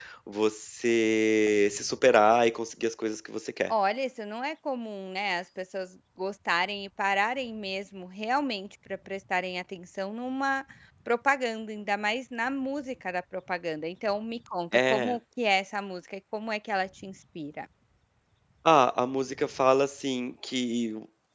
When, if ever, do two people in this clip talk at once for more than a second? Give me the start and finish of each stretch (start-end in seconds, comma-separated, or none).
none